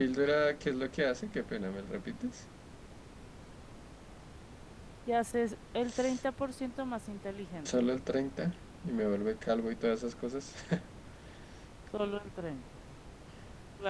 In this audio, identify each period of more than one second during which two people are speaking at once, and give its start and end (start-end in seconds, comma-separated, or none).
none